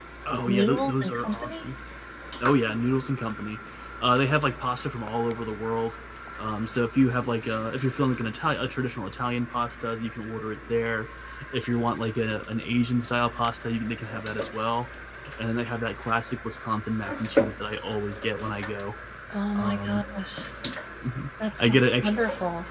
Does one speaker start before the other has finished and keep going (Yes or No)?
Yes